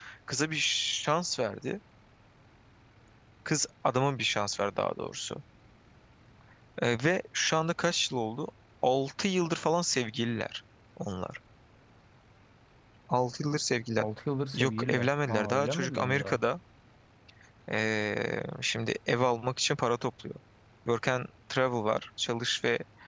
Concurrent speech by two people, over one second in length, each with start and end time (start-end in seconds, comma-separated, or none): 14.5-16.4